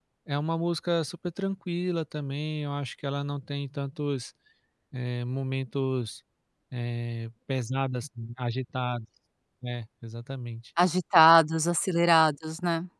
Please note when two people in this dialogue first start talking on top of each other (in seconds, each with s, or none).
none